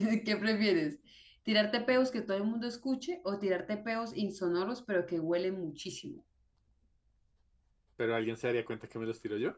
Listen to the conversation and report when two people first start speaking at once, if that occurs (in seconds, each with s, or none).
none